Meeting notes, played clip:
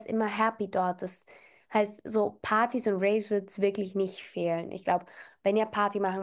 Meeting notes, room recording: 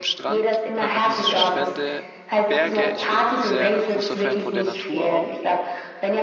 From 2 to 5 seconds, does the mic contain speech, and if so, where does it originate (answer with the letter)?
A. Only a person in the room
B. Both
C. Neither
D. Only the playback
B